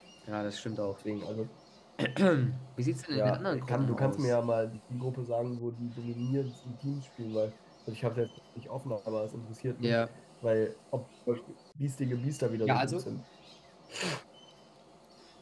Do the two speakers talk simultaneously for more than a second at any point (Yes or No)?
Yes